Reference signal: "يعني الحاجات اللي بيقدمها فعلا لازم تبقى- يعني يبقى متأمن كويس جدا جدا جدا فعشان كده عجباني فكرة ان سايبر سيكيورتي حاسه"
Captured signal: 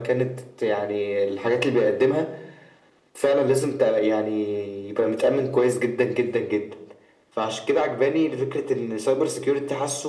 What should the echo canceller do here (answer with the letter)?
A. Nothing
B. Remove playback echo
B